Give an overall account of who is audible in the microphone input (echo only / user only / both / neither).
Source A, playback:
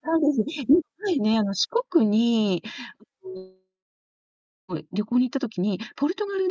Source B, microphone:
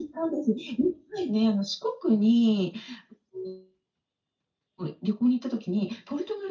echo only